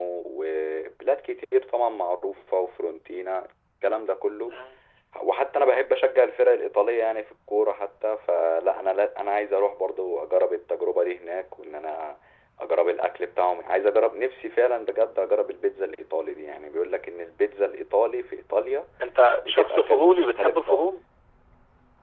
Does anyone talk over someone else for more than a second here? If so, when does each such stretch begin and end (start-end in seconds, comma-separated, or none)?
19.4-20.9